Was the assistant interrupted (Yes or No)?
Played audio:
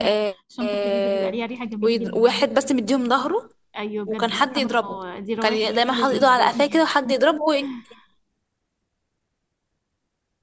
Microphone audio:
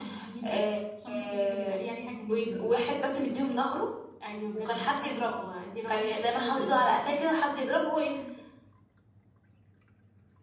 No